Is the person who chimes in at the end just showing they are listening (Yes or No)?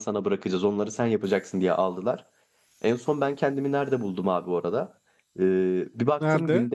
Yes